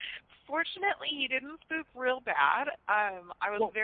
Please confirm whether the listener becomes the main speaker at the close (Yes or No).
No